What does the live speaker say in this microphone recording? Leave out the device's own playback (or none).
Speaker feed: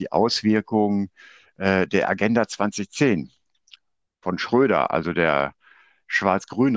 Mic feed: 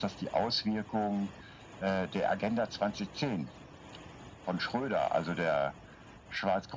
none